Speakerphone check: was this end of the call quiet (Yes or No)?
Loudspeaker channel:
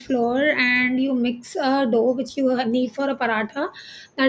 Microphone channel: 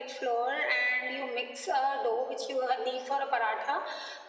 Yes